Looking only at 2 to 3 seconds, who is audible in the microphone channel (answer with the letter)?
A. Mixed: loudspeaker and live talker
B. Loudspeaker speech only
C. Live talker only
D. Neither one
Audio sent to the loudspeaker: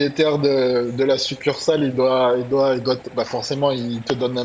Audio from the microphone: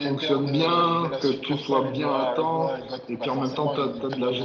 A